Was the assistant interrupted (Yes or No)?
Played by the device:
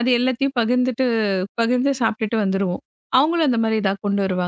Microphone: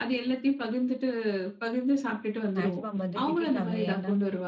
Yes